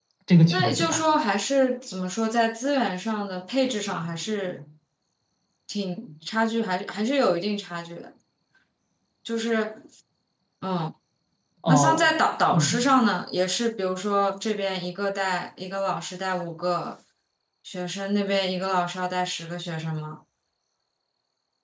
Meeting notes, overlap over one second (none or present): none